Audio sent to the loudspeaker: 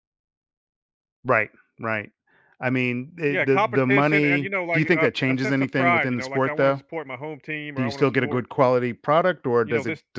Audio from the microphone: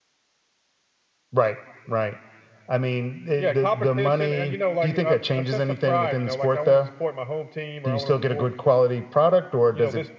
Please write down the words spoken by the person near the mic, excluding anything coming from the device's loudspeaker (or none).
none